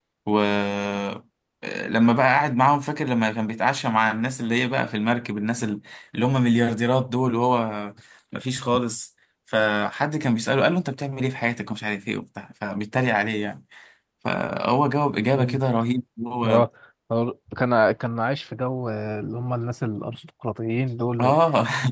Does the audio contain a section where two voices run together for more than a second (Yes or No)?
No